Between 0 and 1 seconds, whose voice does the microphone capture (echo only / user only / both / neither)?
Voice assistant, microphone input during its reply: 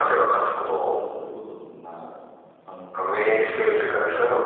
both